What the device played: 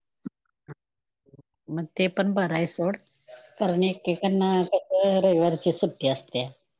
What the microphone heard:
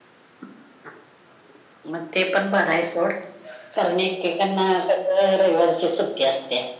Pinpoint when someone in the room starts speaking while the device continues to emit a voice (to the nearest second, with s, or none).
none